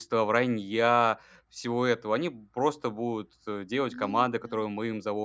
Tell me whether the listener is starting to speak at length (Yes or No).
No